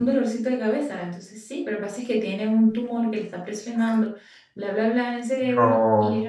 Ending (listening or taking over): listening